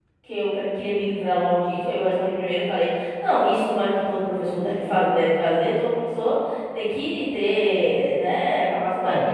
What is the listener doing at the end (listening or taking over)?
taking over